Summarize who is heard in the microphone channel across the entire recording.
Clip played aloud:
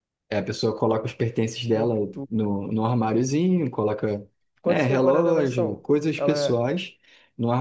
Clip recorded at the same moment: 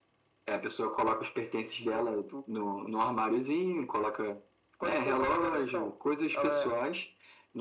echo only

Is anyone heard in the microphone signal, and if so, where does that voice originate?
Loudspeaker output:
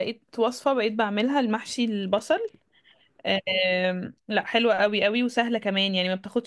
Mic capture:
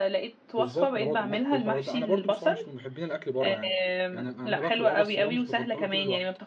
both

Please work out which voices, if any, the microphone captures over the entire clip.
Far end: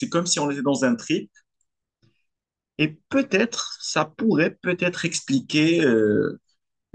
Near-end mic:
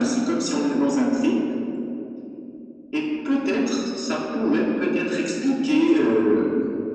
echo only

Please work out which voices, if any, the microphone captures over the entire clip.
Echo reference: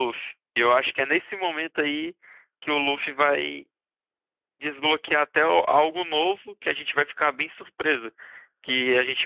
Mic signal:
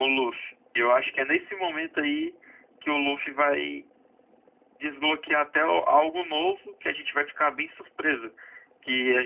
echo only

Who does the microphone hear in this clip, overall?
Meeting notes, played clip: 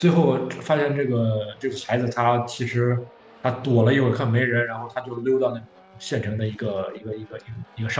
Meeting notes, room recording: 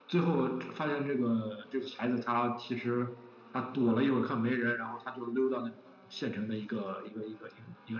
echo only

